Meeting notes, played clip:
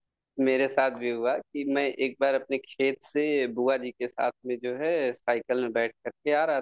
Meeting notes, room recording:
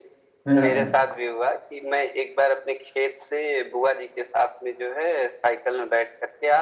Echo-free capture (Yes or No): No